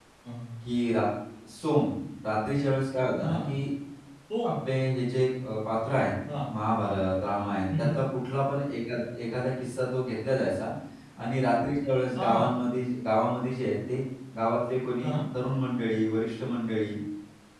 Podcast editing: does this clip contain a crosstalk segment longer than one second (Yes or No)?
No